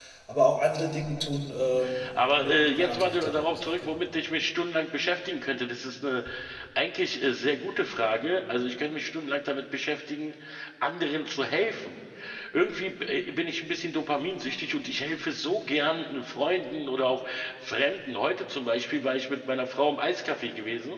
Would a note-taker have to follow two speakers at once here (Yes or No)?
Yes